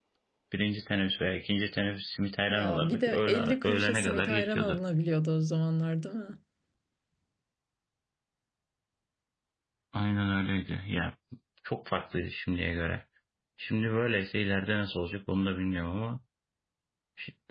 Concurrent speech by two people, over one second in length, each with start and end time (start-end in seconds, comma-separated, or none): 2.5-4.8